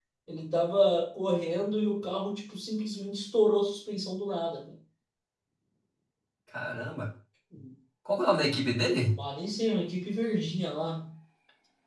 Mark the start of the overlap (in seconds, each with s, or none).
none